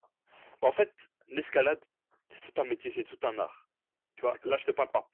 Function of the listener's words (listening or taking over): listening